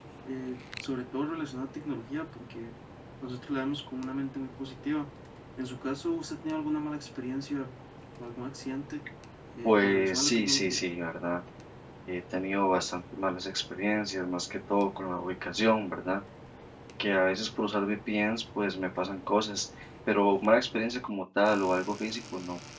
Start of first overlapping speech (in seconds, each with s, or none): 9.6 s